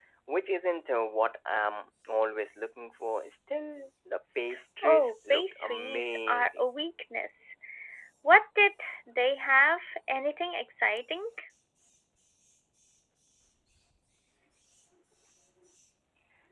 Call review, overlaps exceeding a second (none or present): present